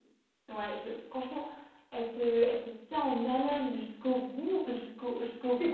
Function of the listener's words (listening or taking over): taking over